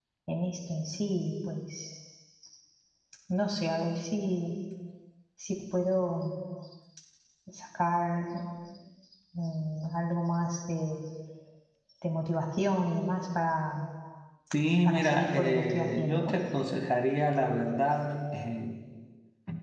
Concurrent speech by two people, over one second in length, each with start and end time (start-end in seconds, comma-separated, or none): 14.8-16.4